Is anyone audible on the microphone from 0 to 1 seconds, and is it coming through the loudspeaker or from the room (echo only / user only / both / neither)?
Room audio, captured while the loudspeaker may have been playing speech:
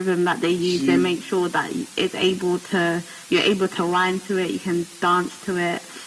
both